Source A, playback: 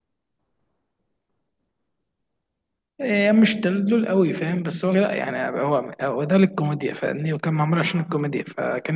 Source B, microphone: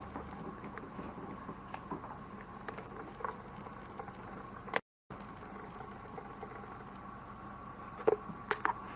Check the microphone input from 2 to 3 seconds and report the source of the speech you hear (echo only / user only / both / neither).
neither